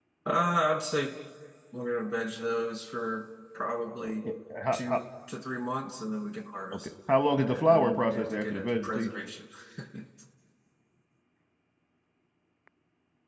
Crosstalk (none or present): present